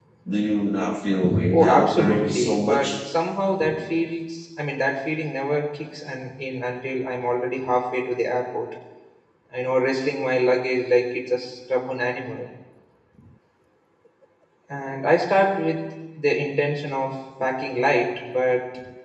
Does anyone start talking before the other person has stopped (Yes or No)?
Yes